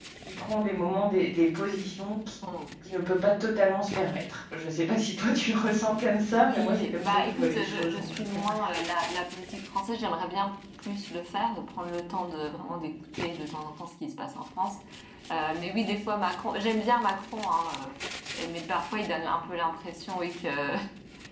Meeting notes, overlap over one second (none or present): present